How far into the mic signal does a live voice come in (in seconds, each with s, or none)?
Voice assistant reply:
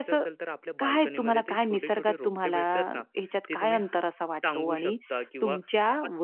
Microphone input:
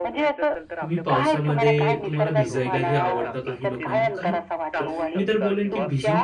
0.8 s